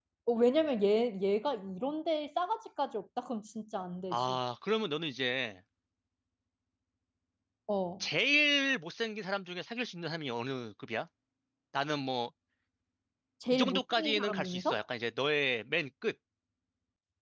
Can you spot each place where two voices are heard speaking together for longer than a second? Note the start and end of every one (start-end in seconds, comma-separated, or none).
13.5-14.8